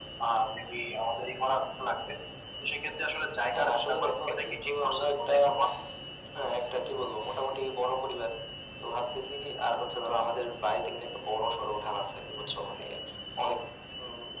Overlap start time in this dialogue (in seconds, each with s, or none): 3.5 s